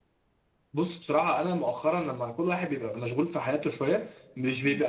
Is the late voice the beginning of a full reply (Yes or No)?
No